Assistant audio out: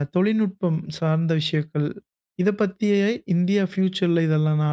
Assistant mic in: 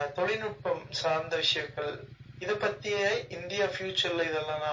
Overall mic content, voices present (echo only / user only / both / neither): echo only